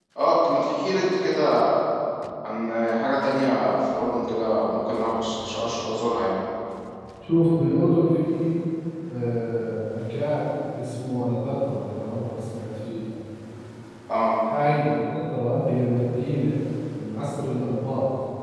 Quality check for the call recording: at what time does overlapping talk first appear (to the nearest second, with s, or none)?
none